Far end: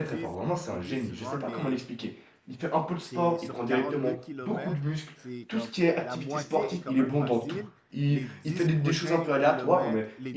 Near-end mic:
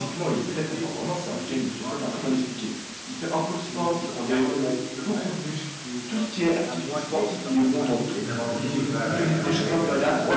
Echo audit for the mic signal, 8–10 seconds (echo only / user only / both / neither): both